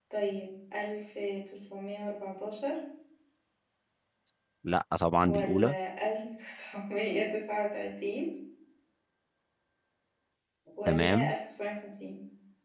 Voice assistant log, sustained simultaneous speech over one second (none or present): none